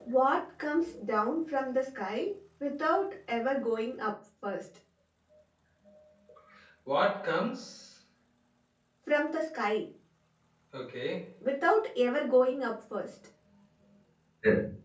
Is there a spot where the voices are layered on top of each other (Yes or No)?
No